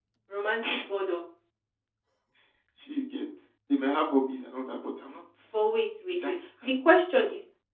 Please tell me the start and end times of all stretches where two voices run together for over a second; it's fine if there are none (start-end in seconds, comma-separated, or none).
none